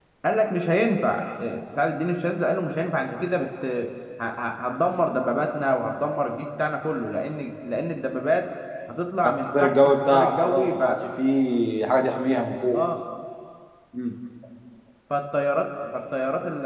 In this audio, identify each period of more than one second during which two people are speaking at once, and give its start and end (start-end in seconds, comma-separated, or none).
9.3-10.8